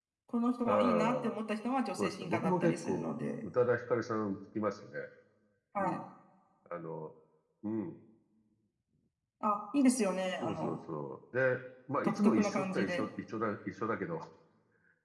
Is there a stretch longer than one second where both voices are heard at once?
Yes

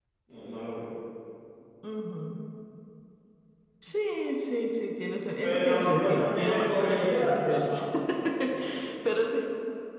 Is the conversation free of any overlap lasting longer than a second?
No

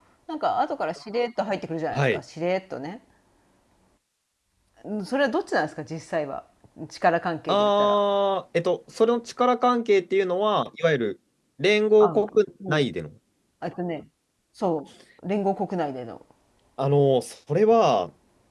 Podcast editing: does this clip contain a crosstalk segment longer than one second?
No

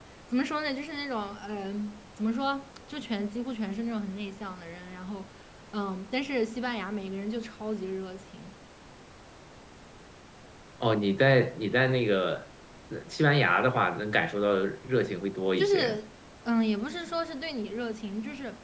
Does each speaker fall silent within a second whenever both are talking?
Yes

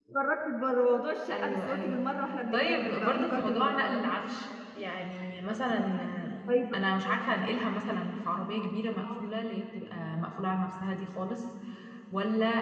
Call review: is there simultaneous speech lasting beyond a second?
Yes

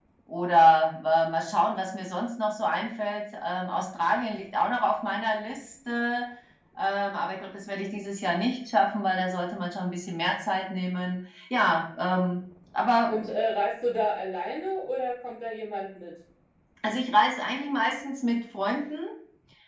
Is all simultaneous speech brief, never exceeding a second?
Yes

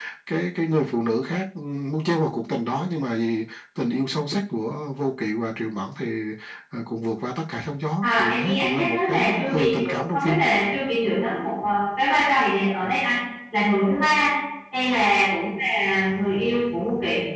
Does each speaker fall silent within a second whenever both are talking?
No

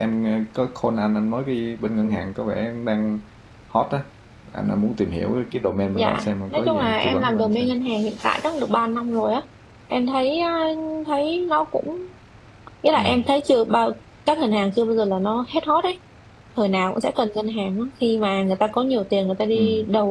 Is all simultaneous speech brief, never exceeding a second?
No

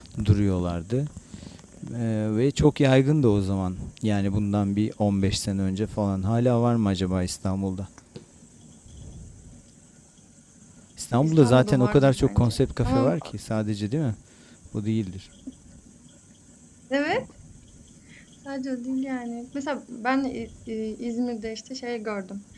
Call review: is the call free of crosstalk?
No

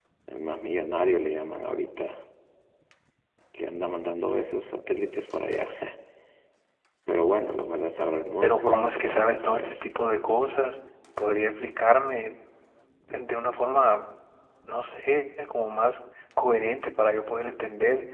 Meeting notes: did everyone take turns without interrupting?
No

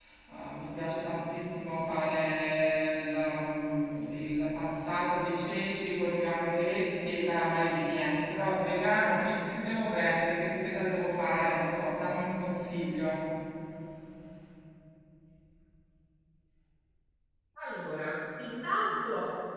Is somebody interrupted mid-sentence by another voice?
No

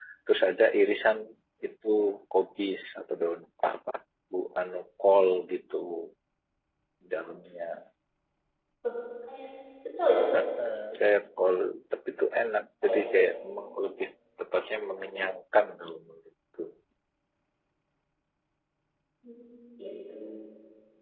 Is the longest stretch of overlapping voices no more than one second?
Yes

